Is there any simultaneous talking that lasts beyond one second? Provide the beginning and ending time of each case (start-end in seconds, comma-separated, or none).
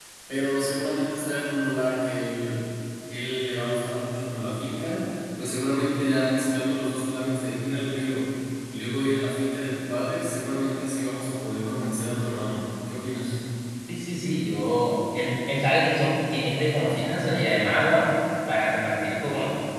none